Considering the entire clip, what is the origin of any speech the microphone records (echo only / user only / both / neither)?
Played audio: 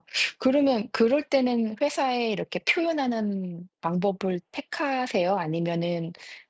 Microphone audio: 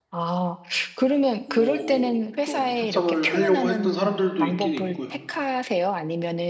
both